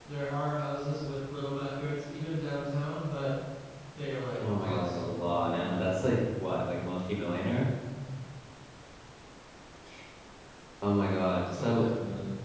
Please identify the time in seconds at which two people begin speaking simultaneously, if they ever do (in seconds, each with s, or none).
4.6 s